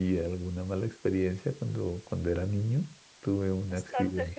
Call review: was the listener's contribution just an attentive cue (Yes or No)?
No